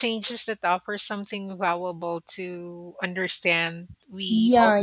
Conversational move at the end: taking over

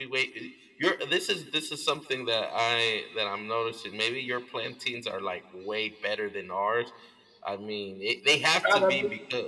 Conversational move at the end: listening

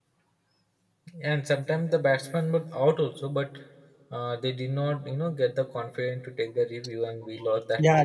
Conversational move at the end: taking over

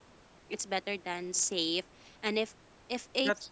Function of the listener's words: listening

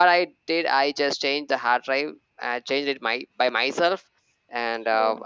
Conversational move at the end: listening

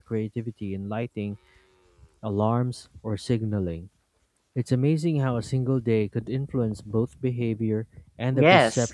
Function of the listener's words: taking over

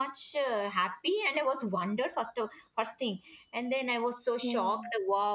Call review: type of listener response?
listening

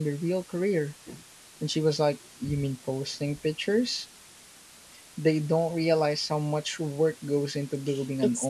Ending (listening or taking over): taking over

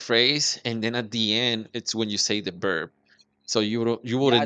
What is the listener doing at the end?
taking over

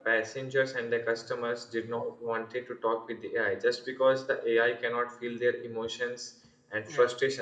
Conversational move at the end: listening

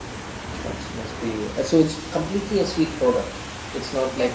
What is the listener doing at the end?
taking over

